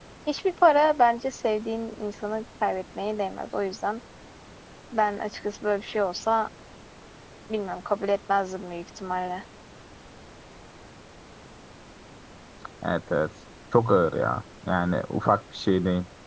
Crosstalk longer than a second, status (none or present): none